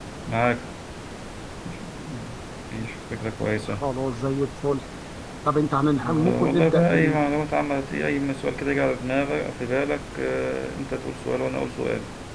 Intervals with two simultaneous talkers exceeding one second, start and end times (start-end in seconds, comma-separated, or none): 5.9-7.2